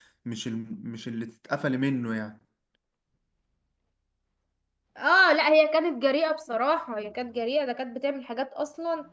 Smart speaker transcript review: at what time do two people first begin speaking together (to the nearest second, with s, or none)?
none